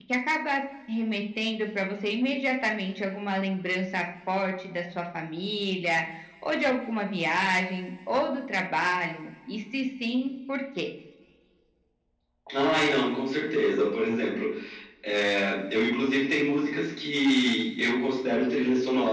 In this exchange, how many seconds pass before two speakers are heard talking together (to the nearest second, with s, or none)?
none